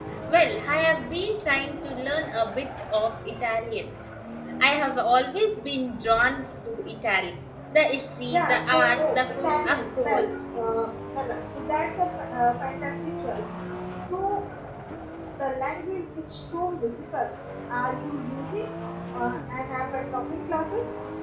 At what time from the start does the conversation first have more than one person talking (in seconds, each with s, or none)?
8.3 s